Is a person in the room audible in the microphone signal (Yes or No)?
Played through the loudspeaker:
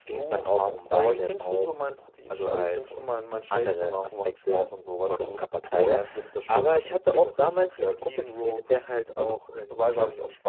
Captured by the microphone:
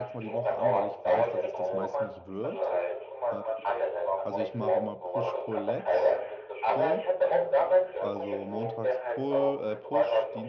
Yes